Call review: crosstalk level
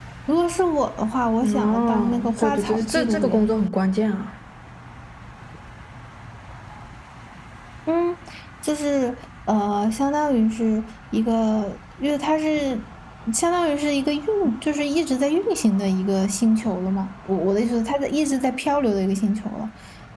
present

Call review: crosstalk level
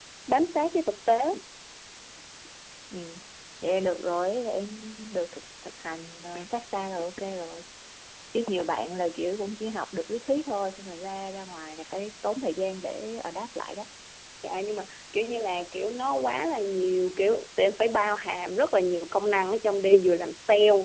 none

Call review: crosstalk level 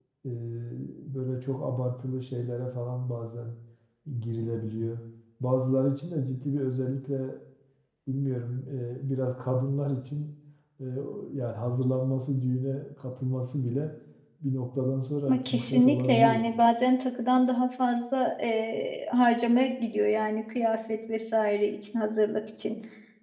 present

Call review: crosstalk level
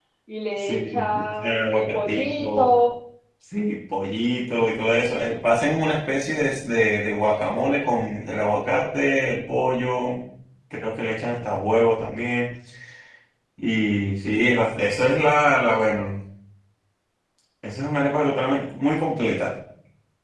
present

